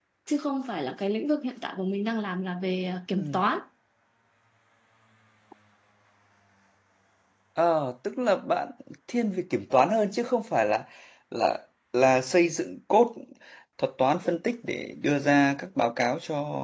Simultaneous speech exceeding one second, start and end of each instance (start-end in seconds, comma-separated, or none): none